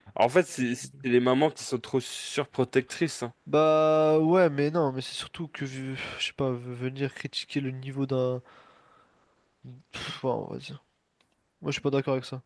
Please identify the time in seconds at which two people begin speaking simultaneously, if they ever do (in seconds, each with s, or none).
none